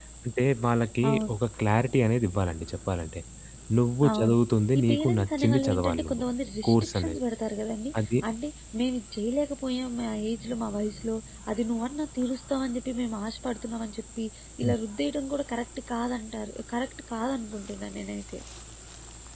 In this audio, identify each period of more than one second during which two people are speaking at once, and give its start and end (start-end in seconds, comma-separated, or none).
4.8-6.2